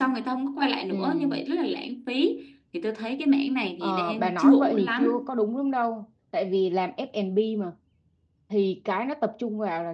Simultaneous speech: Yes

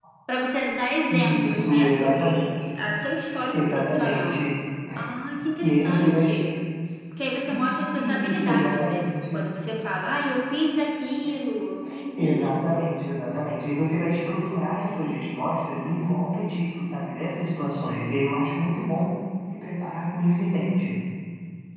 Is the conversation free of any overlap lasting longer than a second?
No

